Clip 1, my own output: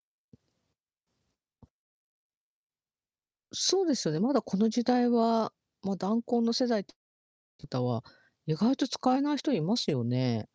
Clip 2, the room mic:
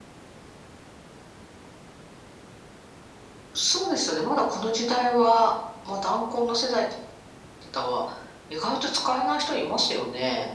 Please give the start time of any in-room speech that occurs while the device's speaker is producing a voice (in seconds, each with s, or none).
none